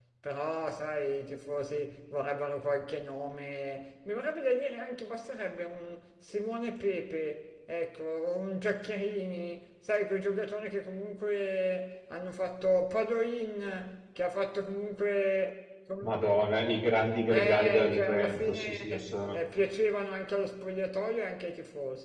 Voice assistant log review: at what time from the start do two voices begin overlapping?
17.3 s

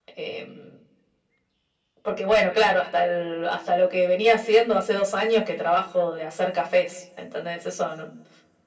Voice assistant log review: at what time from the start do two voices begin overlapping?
none

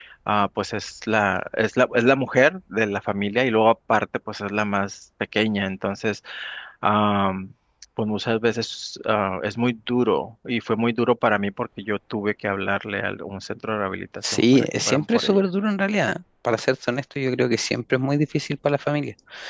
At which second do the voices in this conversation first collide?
14.2 s

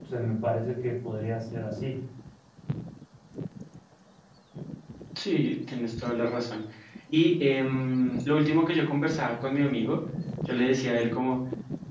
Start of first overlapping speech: none

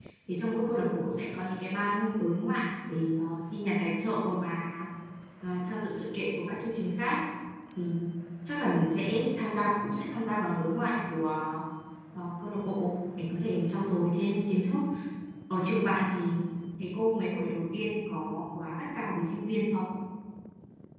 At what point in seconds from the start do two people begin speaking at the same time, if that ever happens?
none

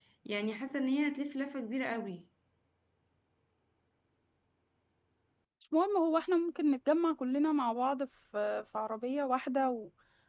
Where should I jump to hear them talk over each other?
none

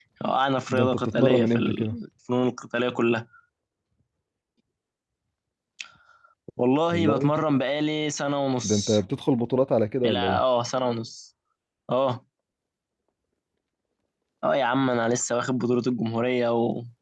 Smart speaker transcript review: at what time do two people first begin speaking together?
0.7 s

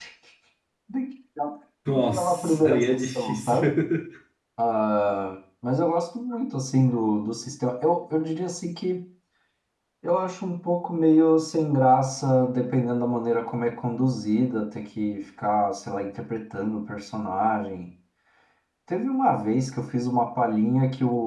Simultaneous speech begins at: 1.9 s

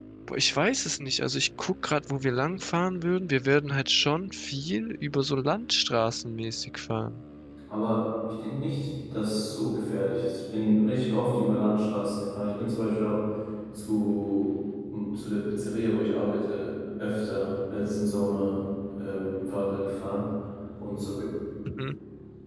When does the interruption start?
none

